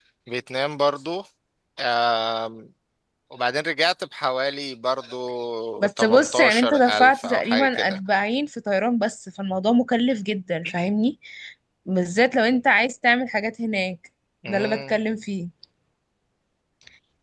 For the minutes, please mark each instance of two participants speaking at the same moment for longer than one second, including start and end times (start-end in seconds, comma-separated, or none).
5.8-8.0